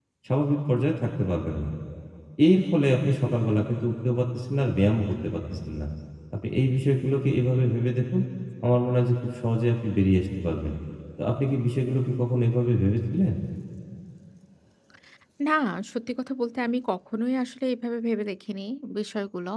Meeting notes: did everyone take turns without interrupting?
Yes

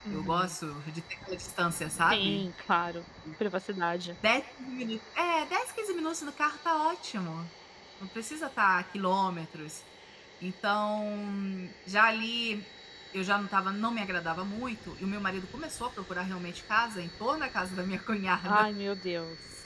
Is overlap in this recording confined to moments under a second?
Yes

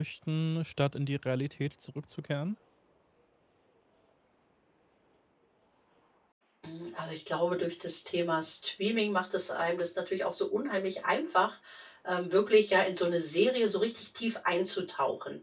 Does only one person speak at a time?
Yes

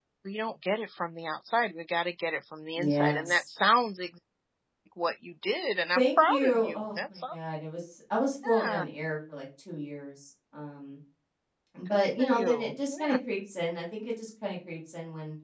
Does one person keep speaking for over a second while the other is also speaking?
Yes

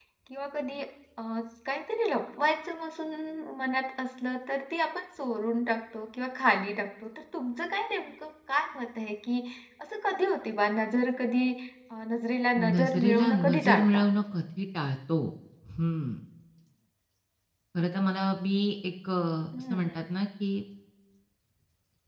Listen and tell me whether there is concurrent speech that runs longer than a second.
Yes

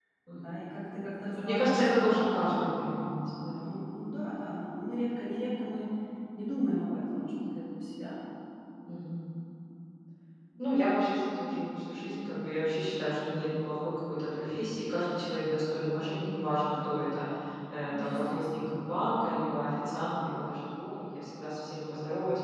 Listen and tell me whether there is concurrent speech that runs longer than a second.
Yes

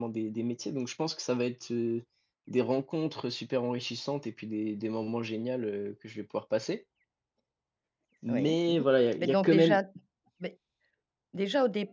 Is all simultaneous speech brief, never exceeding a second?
No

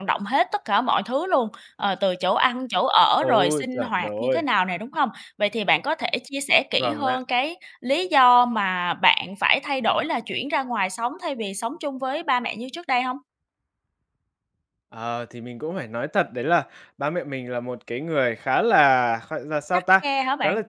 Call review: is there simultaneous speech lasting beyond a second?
Yes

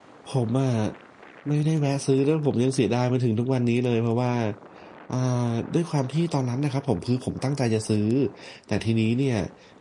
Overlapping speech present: No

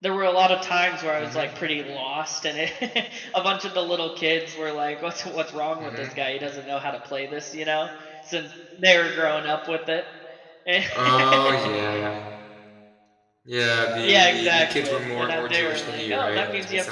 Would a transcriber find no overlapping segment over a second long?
No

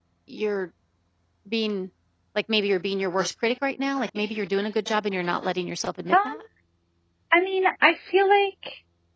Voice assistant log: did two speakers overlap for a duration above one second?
No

